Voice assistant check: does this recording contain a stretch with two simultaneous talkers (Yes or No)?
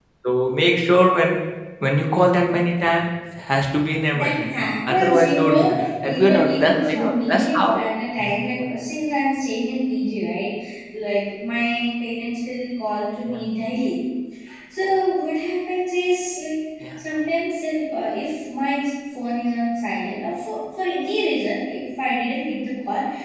Yes